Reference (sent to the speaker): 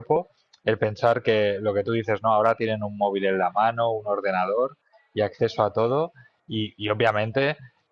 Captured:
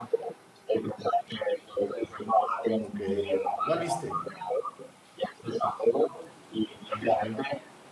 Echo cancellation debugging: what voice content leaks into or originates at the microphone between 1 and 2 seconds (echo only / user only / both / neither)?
echo only